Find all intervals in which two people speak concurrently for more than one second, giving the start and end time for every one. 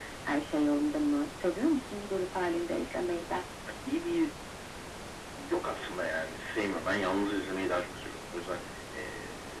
none

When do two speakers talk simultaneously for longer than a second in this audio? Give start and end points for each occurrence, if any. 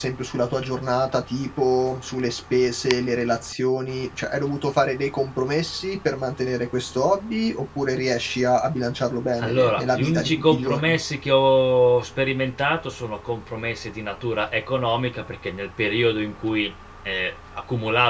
9.4-11.0

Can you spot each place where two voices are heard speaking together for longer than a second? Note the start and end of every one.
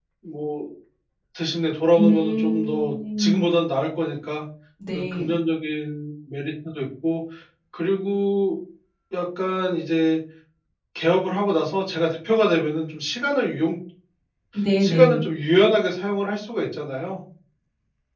2.0-3.4

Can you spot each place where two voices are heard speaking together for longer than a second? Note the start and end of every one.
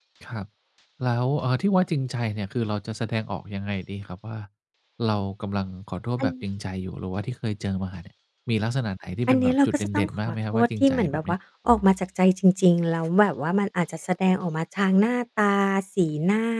9.3-11.3

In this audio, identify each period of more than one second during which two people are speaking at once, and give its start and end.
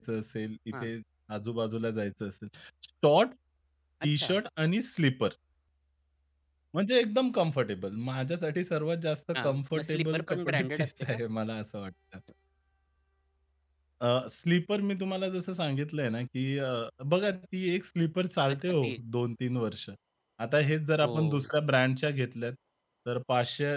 9.4-11.2

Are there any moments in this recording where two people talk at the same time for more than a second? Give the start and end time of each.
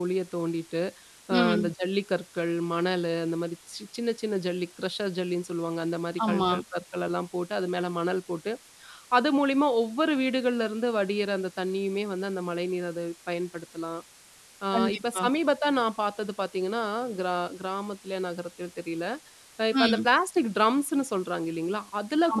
none

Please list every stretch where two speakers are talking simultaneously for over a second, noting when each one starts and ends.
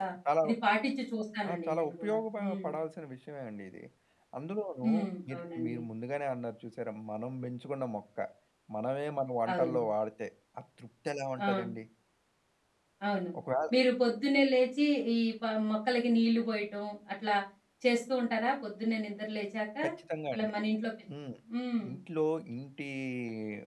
1.5-2.7

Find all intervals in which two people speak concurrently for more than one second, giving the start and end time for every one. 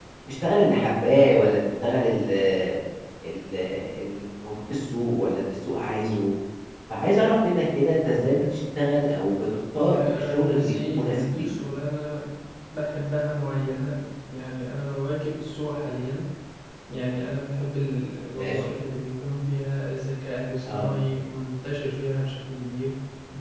9.7-11.5

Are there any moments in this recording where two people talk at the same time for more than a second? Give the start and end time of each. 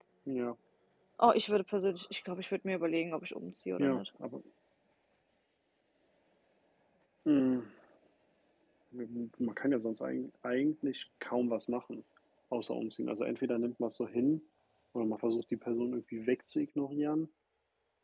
none

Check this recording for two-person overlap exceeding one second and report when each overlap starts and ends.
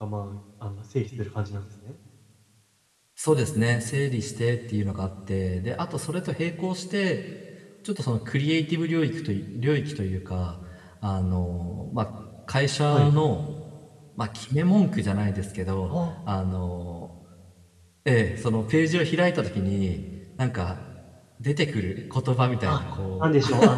none

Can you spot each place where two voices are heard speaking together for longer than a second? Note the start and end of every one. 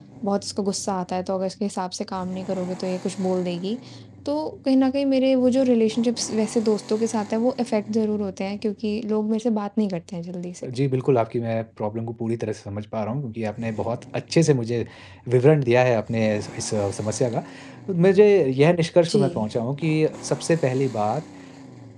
none

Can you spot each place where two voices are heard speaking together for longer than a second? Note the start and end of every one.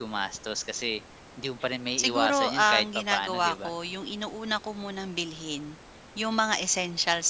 2.0-3.7

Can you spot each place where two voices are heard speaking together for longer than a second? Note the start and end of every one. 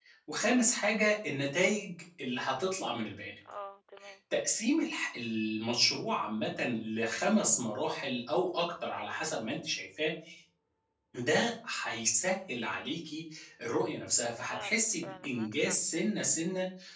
14.4-15.8

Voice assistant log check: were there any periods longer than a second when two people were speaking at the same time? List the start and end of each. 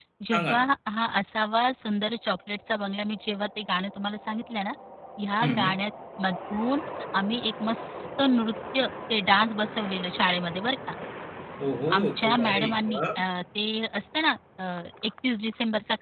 11.9-13.2

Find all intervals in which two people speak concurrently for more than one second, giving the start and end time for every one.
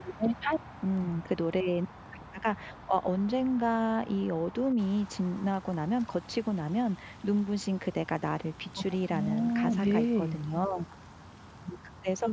9.1-10.3

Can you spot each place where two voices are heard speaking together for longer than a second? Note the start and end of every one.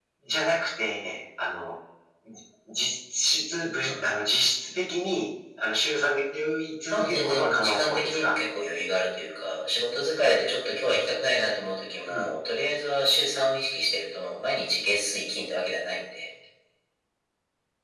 6.9-8.3

